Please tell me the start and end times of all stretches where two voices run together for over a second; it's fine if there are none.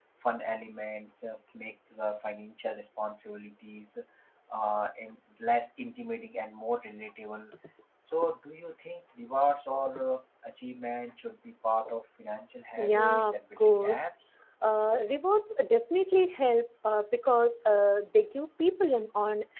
12.8-14.1

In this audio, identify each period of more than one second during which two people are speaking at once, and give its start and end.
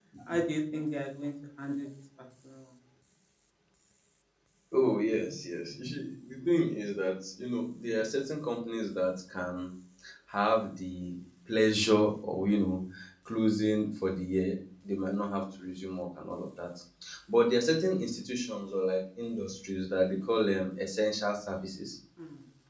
none

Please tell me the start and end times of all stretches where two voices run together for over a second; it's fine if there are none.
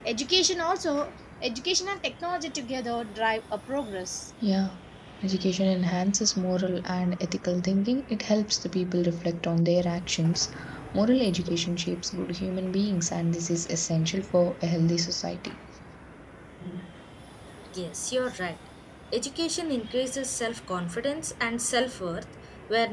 none

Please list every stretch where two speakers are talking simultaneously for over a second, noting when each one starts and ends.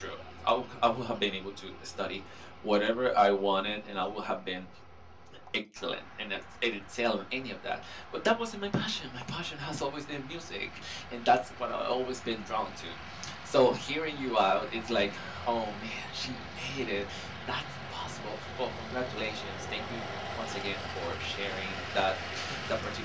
none

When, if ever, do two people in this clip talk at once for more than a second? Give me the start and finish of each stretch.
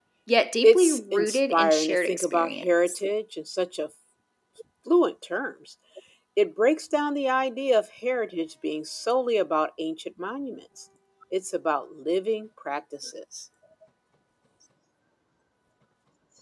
0.6-3.0

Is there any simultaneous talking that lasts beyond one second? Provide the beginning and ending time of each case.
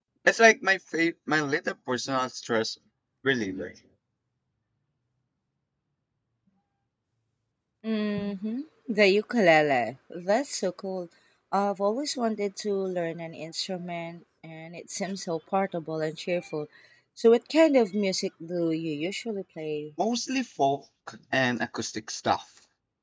none

